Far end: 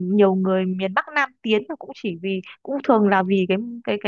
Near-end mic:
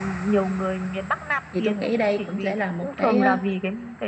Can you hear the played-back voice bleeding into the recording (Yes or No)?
Yes